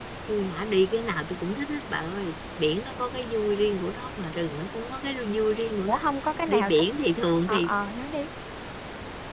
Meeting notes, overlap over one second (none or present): none